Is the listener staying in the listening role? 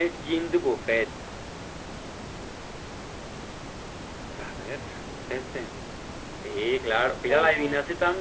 Yes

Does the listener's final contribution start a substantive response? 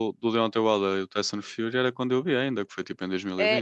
Yes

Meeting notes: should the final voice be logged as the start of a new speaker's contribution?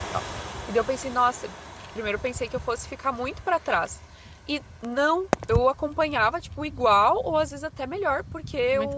No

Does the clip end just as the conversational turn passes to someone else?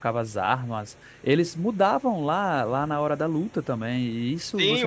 Yes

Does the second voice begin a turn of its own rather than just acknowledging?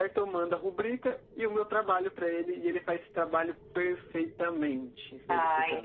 Yes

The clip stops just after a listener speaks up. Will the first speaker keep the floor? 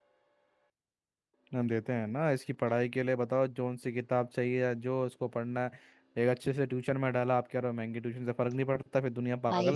No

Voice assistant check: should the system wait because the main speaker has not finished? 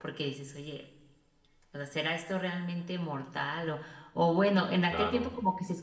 Yes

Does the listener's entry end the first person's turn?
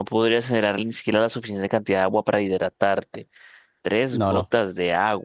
No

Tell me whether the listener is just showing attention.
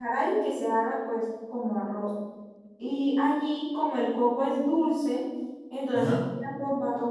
Yes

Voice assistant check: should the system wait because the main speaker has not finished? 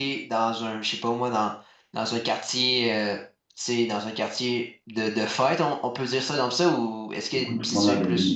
No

